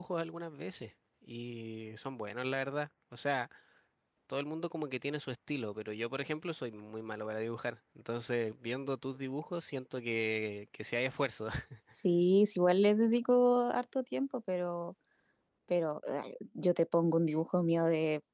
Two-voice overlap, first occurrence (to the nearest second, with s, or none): none